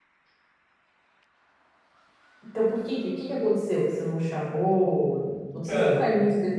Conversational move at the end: listening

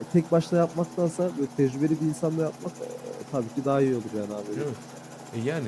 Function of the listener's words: taking over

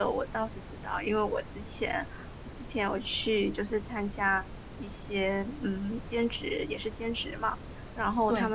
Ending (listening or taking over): listening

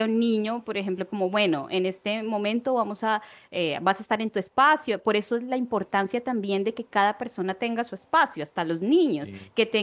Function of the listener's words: listening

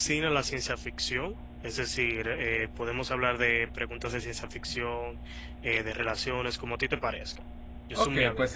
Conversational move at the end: taking over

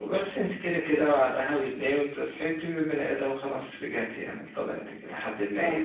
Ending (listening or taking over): listening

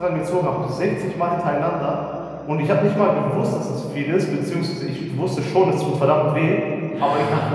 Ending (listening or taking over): listening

